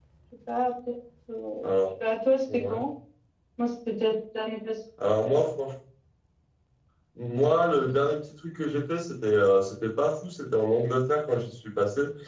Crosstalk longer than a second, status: none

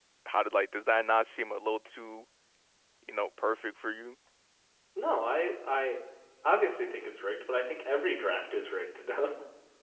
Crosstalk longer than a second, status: none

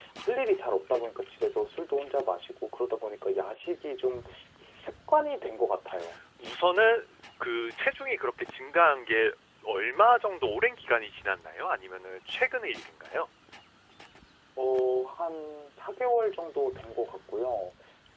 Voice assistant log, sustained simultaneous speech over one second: none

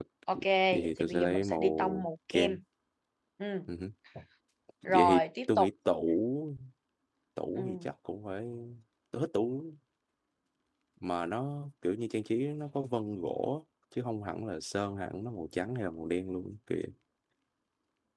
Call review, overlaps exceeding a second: present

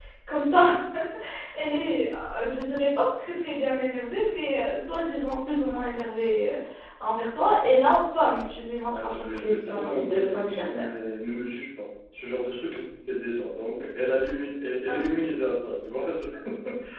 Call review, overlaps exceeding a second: present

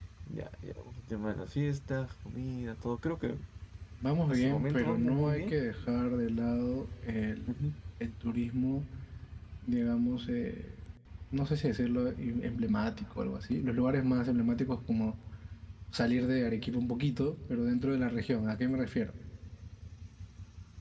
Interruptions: present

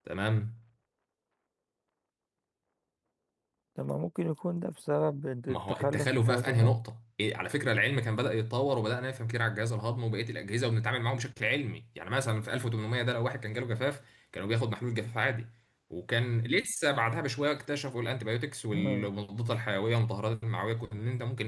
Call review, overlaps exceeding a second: present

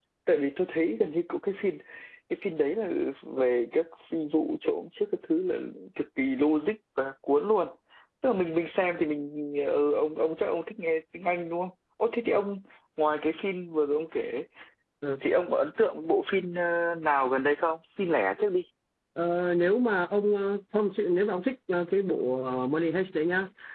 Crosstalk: none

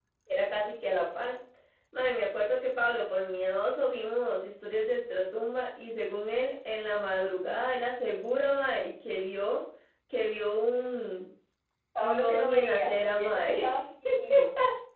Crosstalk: present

